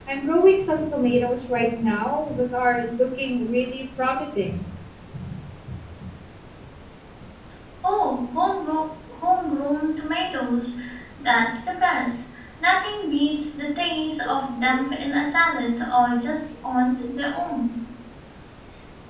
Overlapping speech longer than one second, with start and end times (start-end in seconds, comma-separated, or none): none